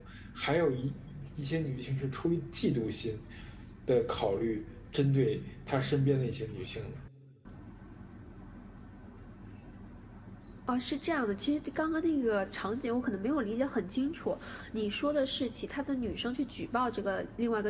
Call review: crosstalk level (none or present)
none